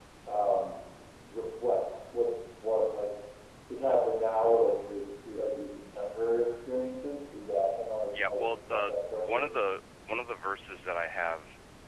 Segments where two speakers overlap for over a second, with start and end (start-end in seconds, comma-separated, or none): 8.1-9.5